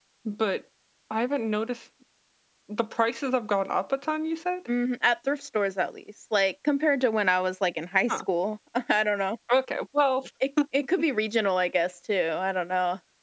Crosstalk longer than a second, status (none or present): none